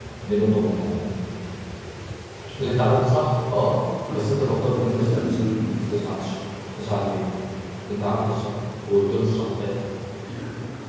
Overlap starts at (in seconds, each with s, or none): 4.1 s